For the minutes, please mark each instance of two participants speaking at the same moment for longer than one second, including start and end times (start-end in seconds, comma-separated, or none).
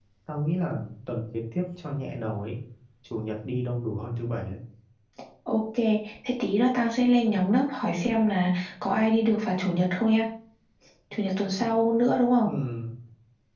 none